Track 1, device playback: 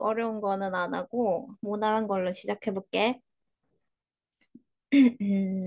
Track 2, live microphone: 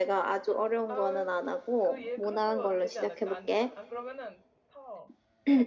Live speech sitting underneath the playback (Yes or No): Yes